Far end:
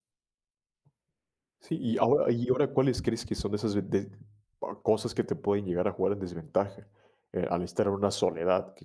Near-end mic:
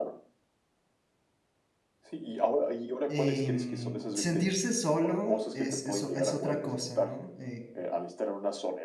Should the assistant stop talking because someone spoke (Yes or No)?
Yes